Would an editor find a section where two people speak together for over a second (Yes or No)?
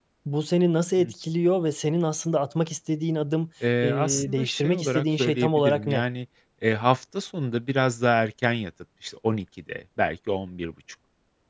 Yes